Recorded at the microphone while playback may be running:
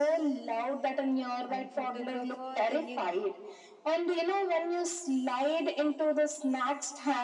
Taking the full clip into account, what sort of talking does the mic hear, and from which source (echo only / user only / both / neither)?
both